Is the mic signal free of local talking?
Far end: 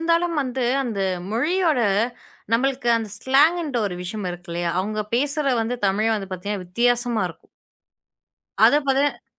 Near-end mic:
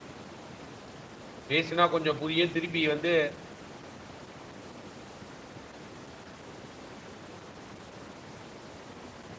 No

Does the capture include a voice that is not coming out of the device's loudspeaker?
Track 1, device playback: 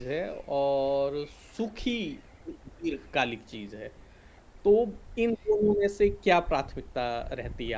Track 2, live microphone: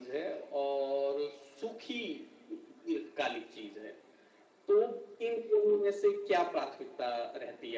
No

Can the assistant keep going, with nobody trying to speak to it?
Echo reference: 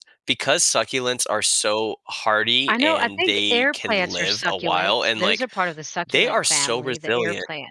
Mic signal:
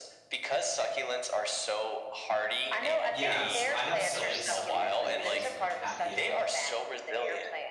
No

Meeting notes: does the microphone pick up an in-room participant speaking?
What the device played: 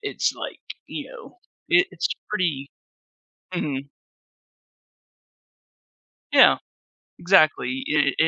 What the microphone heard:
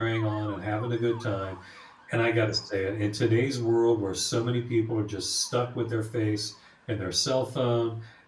Yes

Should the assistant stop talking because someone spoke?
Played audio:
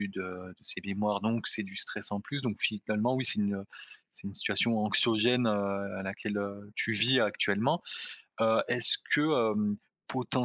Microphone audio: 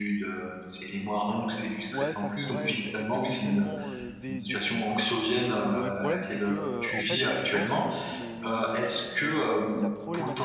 Yes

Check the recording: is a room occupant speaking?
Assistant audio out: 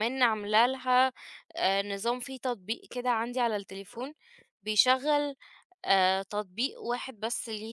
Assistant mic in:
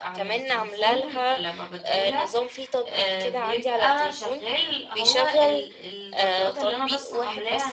Yes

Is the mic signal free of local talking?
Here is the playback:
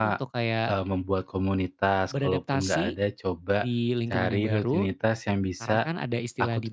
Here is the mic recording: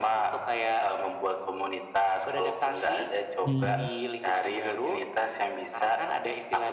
No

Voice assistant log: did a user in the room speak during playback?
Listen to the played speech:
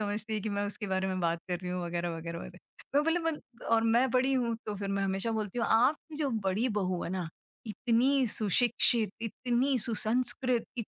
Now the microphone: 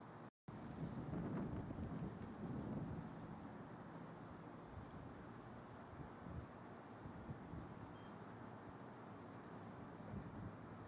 No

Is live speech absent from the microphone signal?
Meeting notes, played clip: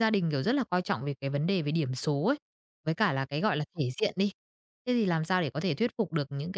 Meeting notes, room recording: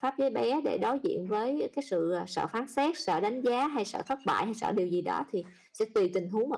No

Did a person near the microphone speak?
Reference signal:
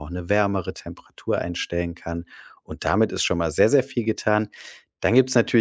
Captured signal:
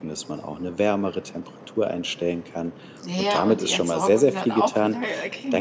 Yes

